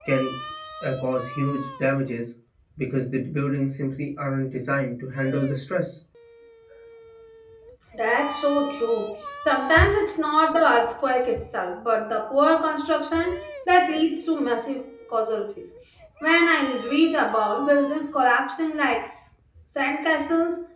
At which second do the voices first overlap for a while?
none

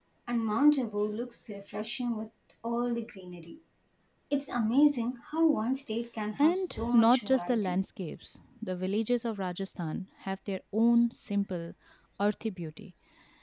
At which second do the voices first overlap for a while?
6.4 s

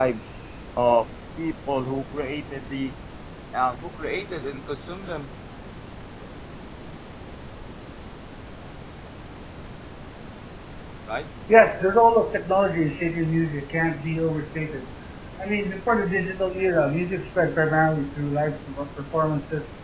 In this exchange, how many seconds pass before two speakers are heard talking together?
none

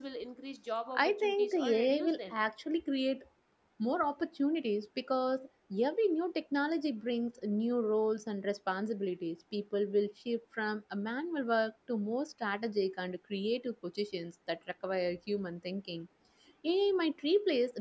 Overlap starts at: 0.9 s

